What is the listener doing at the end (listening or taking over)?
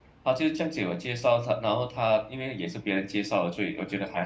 taking over